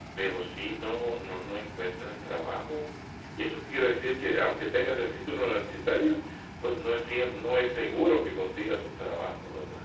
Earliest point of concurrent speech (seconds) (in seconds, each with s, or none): none